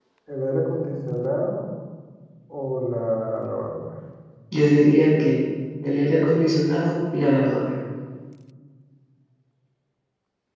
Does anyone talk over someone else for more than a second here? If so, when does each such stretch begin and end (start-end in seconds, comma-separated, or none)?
none